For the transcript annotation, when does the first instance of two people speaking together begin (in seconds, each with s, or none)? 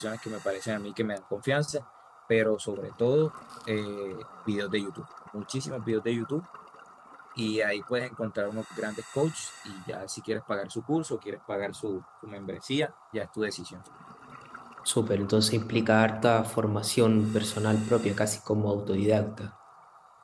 none